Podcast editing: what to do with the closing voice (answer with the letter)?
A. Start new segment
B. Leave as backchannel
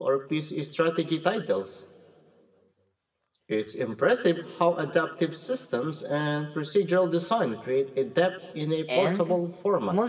A